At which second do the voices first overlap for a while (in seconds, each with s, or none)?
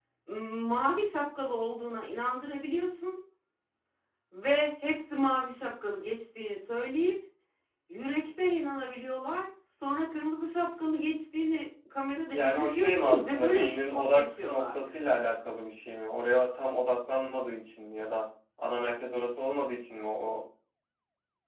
12.3 s